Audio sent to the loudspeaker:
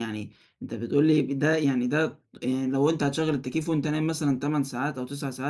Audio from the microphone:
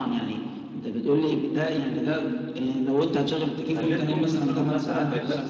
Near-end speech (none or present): present